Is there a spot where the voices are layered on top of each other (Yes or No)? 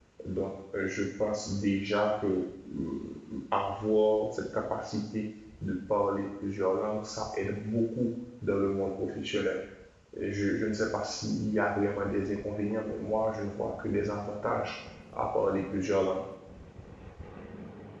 No